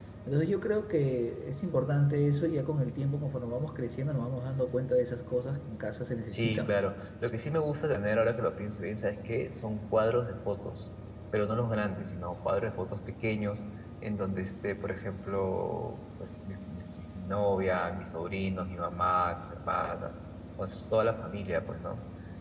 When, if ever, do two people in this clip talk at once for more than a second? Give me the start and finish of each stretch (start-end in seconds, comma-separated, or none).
none